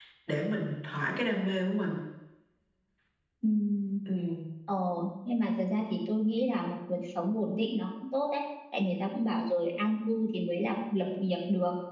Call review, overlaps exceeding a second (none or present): none